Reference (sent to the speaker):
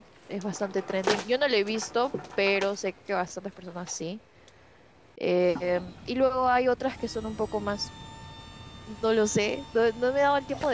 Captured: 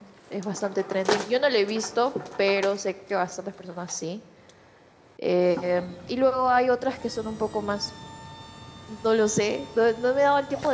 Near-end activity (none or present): none